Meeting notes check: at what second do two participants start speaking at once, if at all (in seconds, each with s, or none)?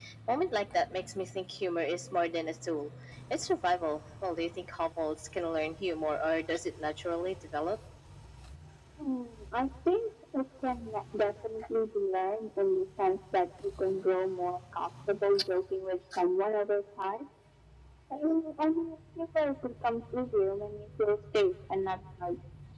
none